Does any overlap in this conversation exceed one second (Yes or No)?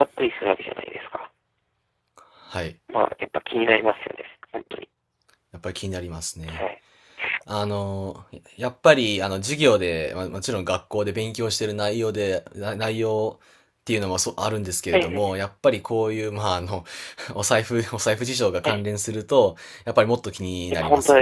No